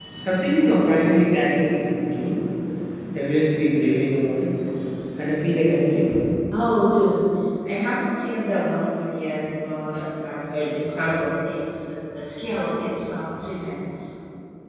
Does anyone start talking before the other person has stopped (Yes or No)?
No